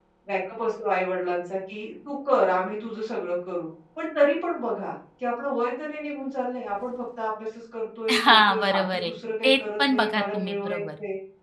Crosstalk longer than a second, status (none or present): present